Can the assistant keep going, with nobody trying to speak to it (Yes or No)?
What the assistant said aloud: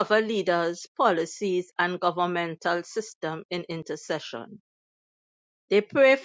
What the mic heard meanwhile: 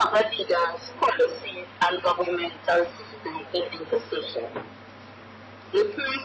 Yes